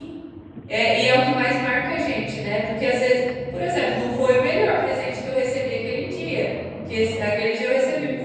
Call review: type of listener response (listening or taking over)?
listening